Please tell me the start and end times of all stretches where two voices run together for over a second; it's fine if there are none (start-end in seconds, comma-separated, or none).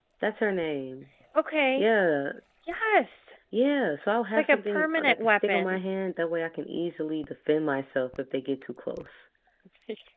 4.3-5.8